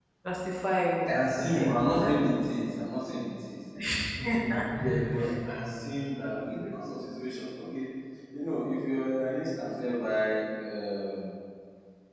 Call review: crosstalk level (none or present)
present